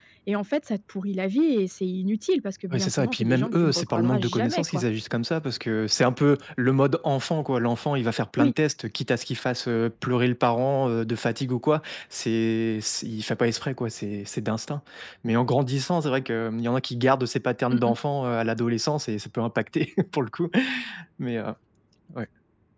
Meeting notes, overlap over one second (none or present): present